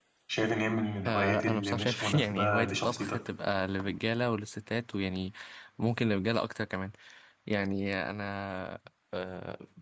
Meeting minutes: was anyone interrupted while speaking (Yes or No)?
Yes